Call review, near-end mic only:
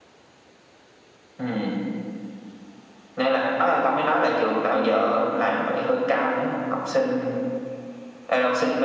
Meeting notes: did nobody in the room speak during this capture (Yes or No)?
Yes